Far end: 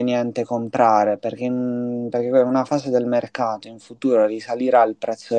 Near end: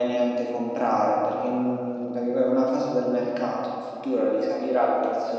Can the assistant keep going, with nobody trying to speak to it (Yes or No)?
Yes